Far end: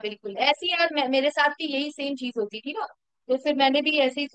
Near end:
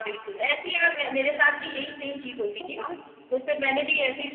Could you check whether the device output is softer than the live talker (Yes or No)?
No